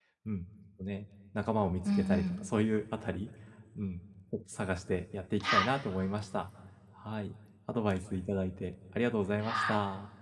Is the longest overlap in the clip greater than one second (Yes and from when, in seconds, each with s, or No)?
No